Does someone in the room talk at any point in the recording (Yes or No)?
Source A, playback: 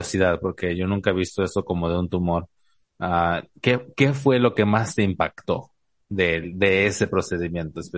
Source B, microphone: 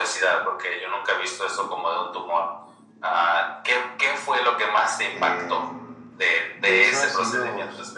Yes